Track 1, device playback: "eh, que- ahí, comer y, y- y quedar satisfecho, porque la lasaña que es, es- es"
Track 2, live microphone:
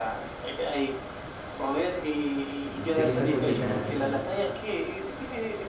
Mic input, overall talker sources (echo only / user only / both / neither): both